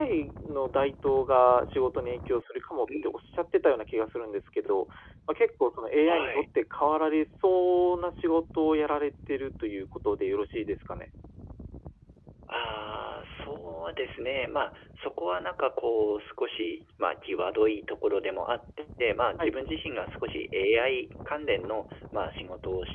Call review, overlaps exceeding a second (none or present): none